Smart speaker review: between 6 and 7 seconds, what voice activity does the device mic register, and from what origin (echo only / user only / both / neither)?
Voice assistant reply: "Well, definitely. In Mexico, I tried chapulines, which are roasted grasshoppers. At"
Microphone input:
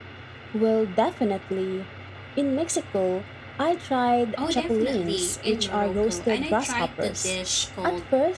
both